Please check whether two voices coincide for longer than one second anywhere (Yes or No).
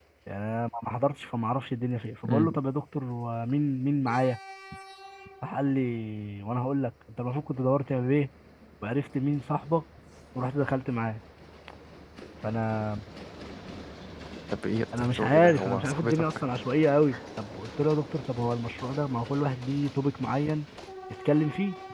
Yes